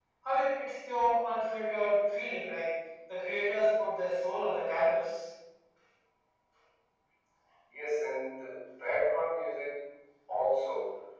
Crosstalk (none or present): none